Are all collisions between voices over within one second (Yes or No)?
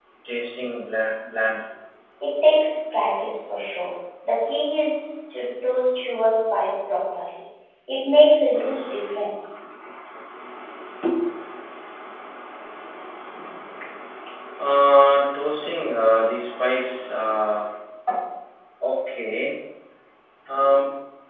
Yes